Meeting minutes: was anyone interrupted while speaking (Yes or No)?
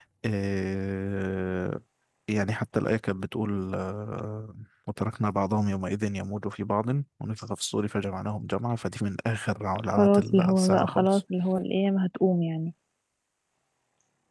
Yes